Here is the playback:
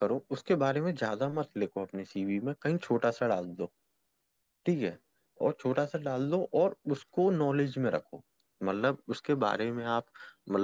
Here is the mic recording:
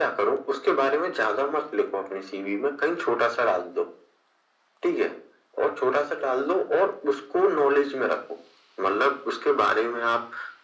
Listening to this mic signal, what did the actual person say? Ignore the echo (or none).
none